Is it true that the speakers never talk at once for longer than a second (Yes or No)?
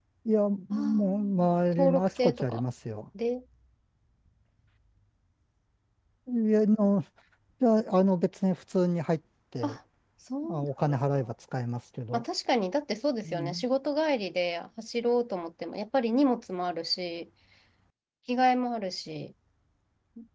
No